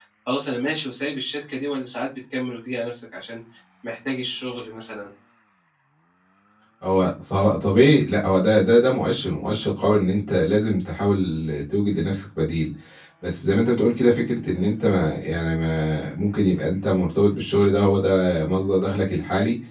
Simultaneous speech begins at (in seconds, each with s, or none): none